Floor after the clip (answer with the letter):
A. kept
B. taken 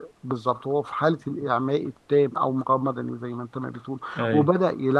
A